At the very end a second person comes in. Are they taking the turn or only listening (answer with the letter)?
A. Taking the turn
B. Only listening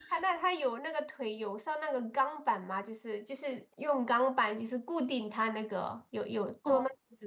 A